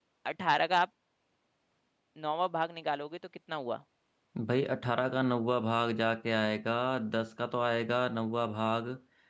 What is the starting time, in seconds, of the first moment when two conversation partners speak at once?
none

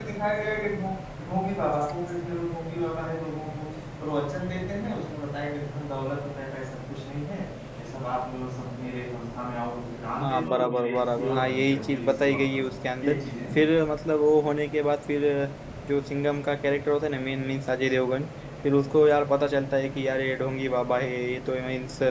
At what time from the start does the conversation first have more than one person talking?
10.2 s

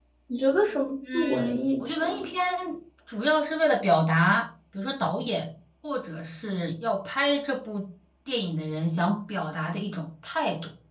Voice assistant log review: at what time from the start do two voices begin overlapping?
1.1 s

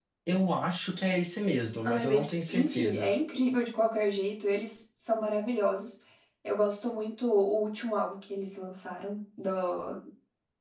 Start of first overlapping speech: 1.9 s

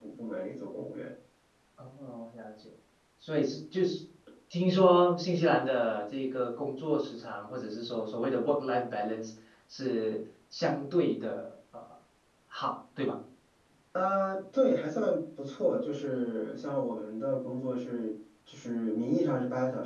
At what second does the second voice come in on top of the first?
none

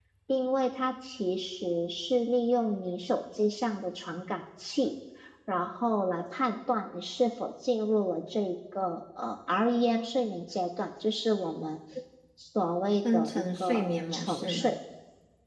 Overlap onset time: 13.1 s

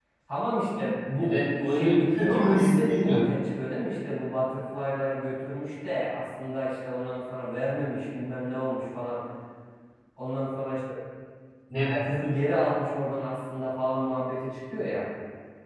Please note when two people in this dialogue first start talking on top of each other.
1.2 s

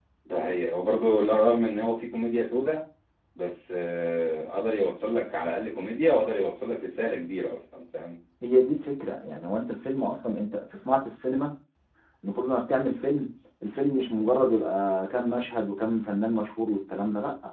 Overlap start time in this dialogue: none

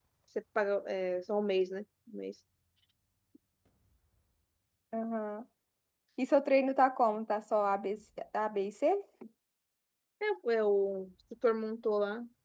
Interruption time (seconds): none

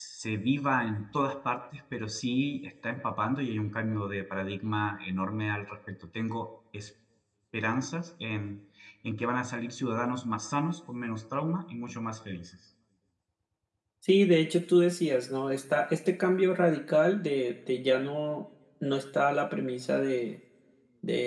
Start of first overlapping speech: none

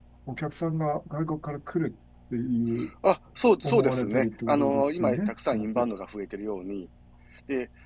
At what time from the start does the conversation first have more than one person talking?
3.6 s

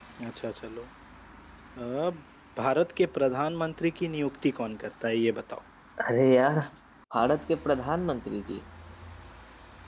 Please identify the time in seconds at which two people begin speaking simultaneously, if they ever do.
none

